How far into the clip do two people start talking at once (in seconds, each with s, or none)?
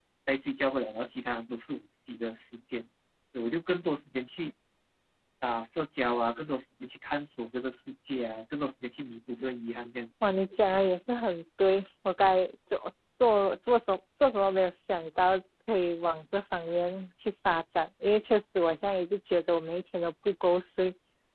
none